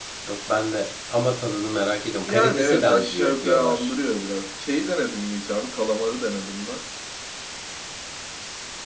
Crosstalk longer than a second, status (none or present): present